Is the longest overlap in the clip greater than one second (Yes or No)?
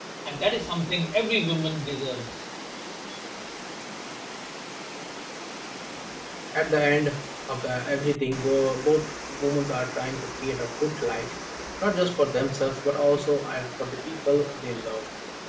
No